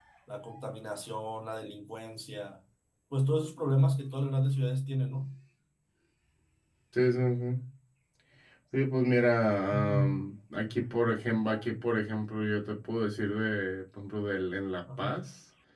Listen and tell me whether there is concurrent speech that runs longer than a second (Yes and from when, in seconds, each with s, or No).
No